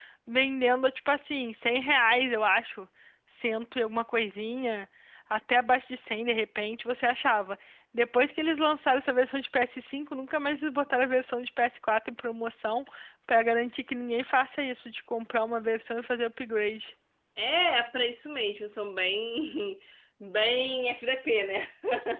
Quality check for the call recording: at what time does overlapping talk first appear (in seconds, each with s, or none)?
none